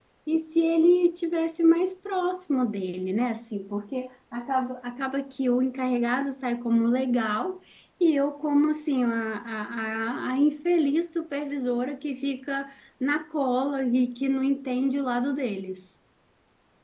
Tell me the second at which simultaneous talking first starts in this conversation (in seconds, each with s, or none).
none